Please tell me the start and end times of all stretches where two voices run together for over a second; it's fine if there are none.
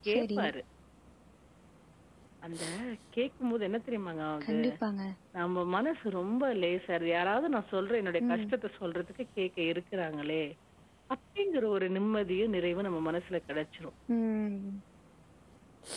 none

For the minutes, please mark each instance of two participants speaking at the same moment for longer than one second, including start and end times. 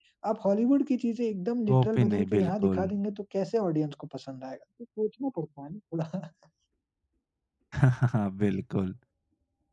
1.7-2.9

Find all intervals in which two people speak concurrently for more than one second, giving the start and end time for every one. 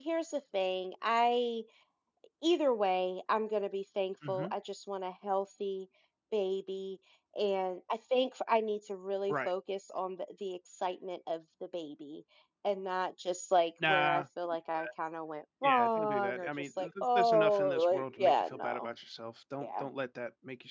15.6-18.9

